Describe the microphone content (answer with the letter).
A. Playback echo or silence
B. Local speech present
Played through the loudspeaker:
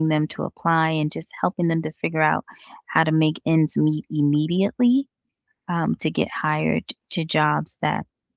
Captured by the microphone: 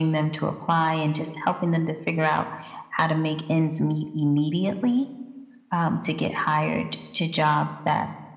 A